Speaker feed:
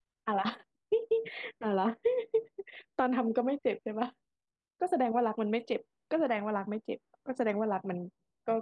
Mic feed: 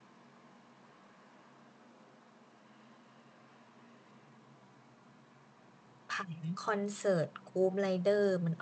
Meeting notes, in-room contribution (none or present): present